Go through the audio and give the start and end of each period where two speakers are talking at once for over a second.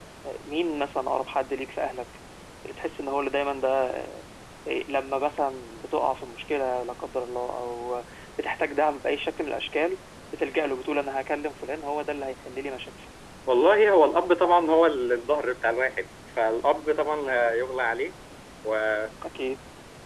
none

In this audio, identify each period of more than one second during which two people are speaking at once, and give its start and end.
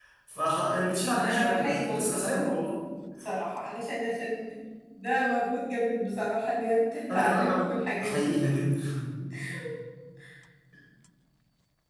0.7-2.5

